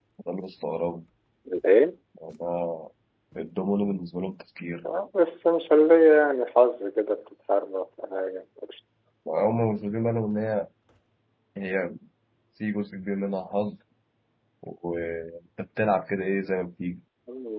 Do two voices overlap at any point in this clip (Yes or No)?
No